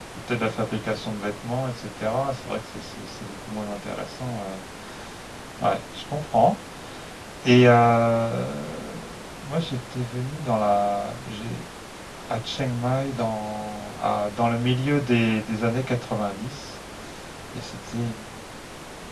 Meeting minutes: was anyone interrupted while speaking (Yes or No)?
No